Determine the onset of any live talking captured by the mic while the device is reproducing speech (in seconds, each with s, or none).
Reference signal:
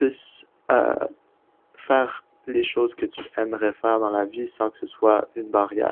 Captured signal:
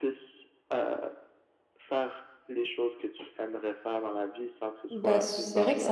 4.9 s